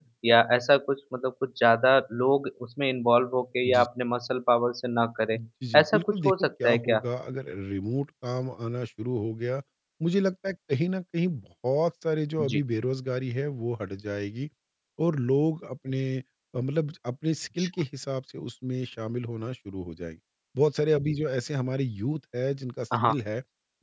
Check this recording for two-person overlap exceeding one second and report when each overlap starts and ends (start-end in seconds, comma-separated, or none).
5.8-7.0